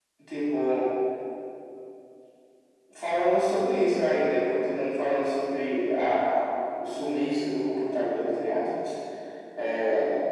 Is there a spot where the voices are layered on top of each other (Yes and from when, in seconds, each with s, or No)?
No